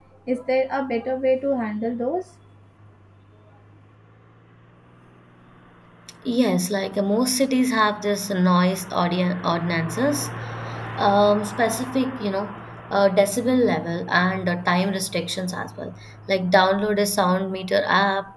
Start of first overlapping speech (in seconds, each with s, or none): none